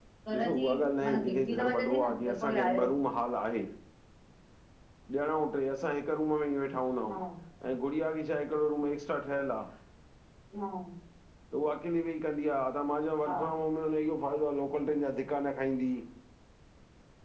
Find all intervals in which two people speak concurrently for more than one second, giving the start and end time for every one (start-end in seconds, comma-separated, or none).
1.1-2.9